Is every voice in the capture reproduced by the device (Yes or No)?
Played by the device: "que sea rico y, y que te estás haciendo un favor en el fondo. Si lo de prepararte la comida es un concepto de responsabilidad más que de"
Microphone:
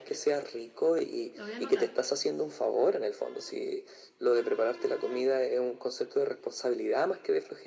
No